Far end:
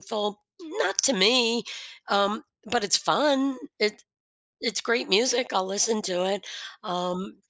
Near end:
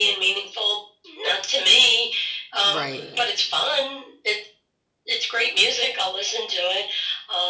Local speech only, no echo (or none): right,